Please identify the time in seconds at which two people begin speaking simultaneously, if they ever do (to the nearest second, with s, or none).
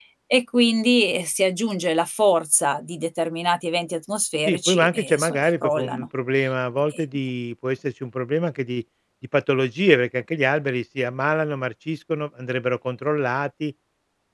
4 s